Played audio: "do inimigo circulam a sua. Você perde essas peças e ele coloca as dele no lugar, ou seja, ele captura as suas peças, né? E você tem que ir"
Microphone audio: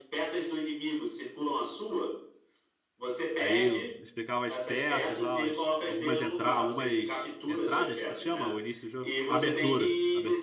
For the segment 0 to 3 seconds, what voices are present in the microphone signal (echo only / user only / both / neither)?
echo only